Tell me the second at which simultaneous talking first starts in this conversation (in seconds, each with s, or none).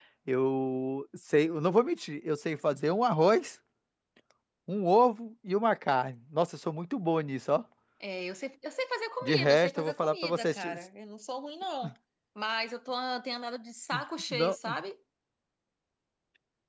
9.2 s